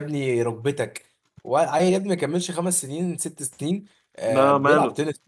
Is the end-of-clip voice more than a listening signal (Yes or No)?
No